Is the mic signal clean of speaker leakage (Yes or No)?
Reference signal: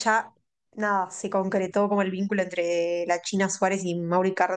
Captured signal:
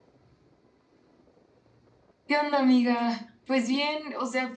Yes